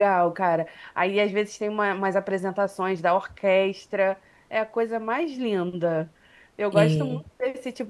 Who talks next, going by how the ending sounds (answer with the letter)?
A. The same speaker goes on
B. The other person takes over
A